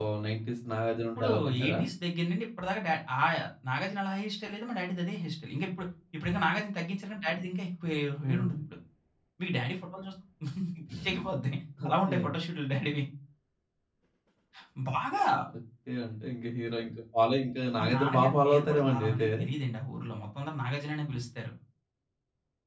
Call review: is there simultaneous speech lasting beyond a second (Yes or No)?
Yes